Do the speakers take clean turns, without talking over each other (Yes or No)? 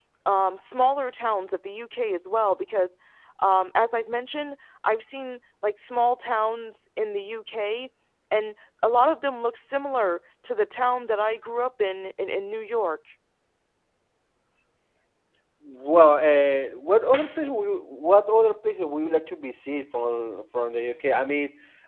Yes